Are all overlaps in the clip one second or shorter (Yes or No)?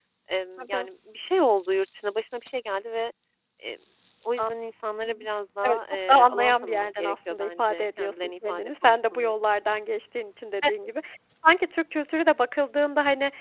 No